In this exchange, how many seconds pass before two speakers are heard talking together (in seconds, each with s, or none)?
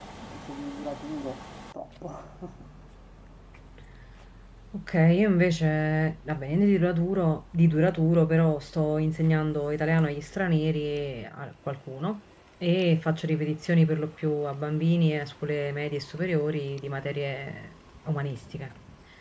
none